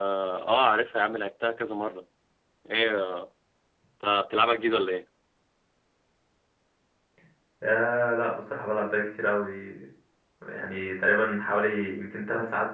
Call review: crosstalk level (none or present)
none